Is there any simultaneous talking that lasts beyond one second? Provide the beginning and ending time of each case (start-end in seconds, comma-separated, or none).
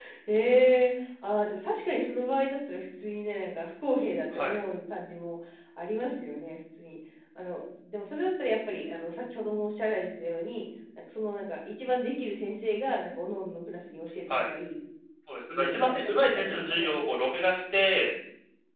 15.5-16.9